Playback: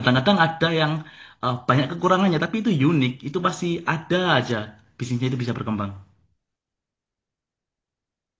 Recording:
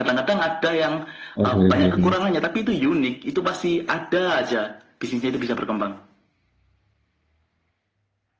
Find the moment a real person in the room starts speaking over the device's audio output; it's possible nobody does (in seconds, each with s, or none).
1.4 s